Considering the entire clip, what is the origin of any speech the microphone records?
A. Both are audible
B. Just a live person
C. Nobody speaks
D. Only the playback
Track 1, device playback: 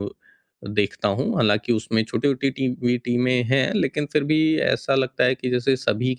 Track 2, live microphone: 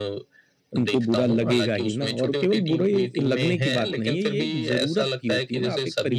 A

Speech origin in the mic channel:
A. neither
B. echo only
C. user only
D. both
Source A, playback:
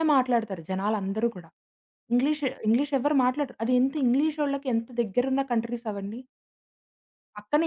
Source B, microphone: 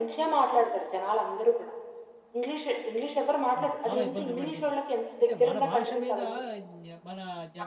D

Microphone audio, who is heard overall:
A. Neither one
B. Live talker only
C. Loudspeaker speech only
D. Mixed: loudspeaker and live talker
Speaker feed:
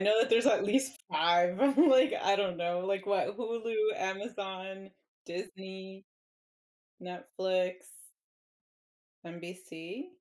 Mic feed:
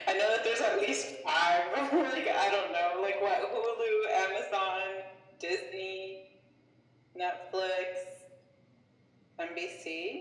C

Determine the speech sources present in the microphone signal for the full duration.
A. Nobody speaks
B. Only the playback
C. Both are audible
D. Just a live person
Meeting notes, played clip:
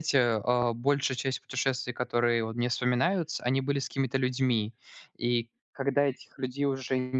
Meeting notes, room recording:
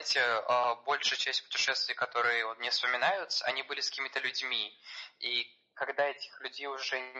B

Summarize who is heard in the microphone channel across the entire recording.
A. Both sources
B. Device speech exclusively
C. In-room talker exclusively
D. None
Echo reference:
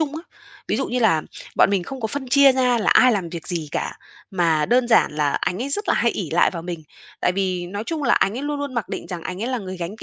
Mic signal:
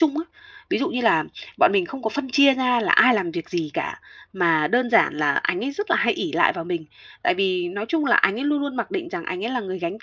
B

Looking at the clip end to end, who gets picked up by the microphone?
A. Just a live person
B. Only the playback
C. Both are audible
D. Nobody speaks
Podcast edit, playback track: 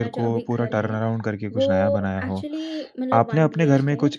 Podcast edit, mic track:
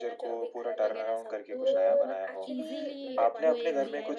C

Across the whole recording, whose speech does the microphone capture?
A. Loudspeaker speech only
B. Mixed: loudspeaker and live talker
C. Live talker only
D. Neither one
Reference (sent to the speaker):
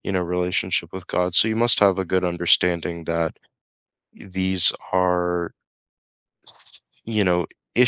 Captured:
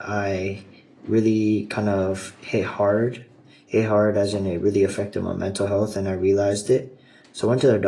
C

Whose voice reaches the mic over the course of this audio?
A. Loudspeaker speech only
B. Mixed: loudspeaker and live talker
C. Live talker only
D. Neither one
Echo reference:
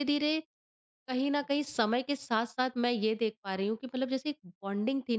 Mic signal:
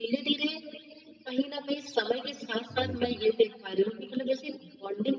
B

